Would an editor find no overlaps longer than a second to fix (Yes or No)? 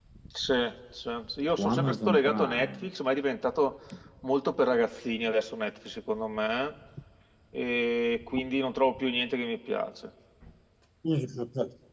No